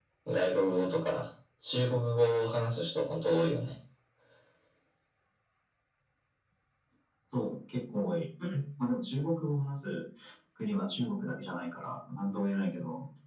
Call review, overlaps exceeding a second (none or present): none